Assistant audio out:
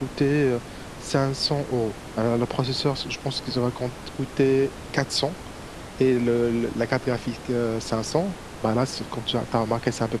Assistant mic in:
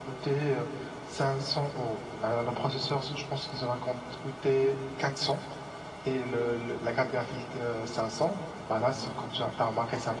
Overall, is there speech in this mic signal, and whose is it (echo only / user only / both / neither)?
echo only